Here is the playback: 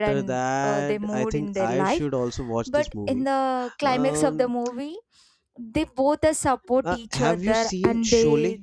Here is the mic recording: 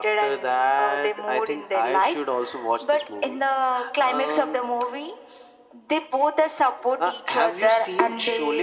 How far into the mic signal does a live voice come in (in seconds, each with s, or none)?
none